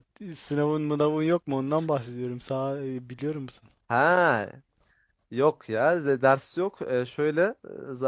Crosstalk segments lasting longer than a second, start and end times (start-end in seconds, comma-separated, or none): none